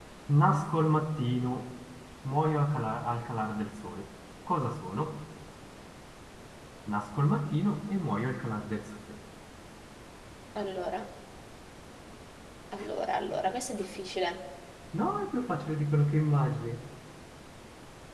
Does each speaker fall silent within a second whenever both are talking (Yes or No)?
Yes